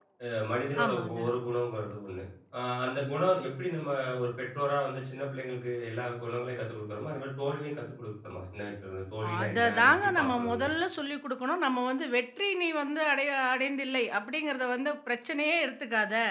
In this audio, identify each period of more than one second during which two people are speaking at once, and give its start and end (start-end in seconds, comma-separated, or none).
9.4-10.7